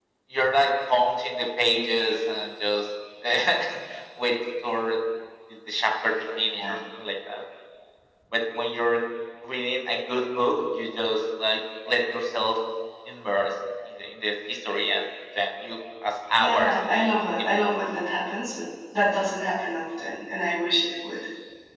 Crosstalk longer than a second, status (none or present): present